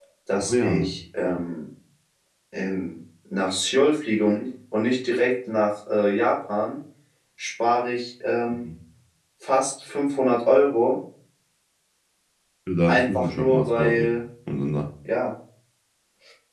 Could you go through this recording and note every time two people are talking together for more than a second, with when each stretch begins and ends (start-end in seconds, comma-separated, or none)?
12.9-14.1